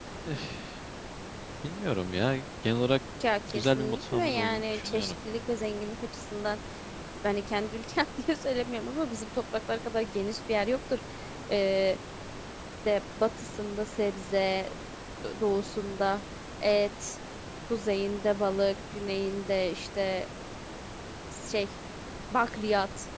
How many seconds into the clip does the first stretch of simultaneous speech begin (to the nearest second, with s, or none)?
3 s